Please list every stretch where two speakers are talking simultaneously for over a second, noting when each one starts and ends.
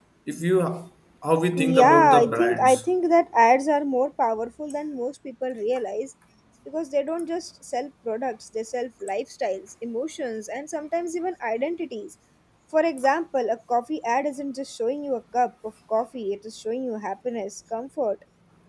1.6-2.8

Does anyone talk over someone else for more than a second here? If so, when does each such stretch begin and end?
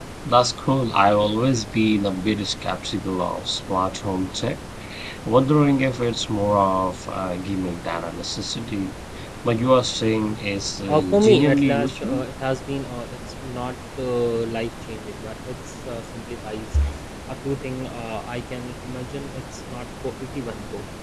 10.9-12.2

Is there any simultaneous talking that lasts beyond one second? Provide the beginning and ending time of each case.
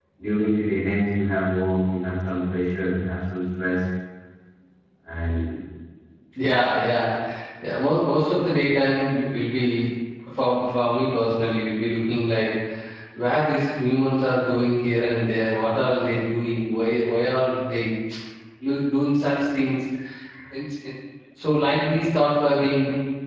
none

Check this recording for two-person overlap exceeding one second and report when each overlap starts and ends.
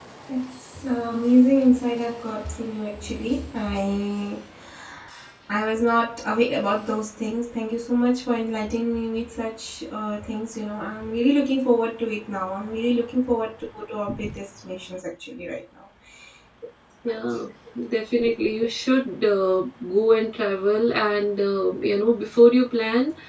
none

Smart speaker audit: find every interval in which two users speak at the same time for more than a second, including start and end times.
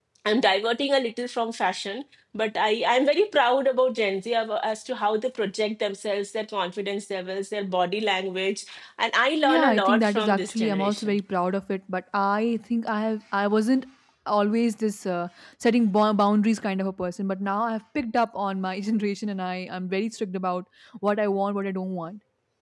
9.4-11.2

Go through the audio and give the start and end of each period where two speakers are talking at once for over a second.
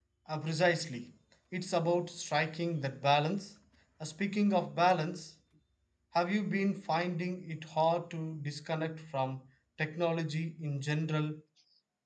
none

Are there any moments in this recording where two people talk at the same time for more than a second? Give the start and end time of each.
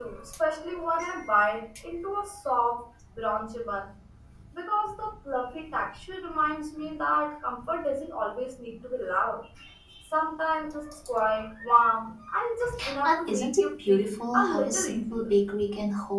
13.0-15.3

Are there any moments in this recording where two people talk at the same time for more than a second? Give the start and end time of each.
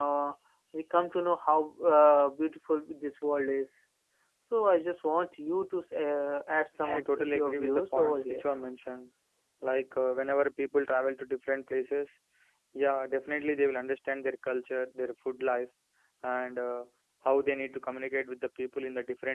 6.8-8.4

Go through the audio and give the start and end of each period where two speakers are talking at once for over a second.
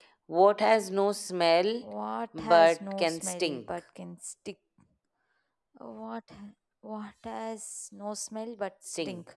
2.4-3.6

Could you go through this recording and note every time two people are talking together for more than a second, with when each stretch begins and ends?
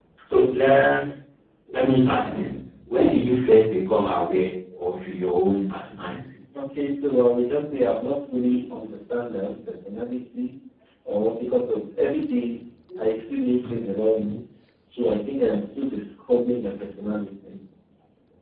none

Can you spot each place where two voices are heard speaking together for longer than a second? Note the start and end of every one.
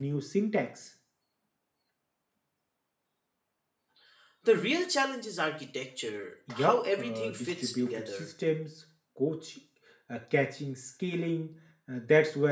6.5-8.3

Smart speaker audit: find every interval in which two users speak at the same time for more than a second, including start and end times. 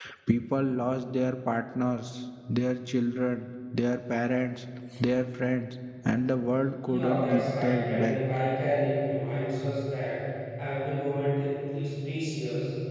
6.9-8.2

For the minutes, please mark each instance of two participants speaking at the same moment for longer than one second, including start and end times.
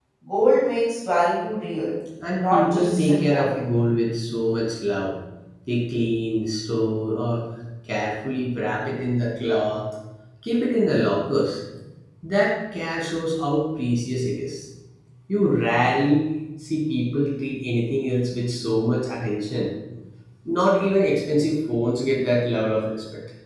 2.4-3.6

